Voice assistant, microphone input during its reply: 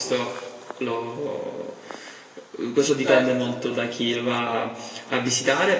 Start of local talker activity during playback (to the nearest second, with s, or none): 3 s